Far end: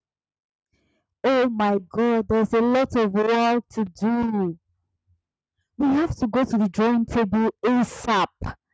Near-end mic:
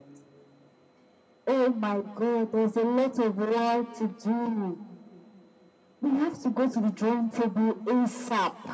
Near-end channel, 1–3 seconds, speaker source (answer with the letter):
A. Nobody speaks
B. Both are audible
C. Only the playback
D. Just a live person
C